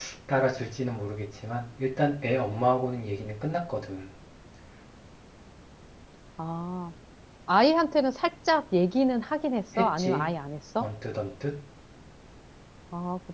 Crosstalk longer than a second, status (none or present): none